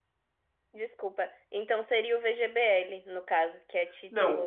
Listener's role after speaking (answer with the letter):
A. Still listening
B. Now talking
B